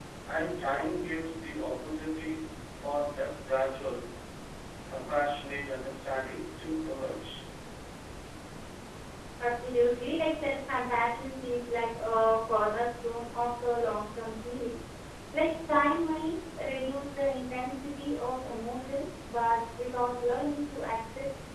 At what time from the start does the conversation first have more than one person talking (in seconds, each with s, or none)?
none